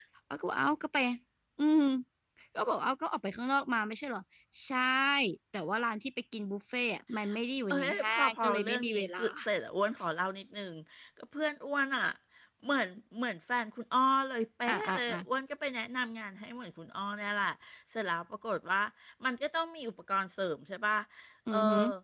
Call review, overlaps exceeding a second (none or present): present